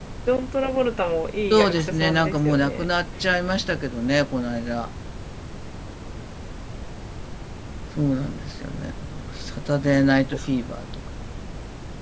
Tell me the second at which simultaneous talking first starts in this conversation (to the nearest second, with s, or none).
2 s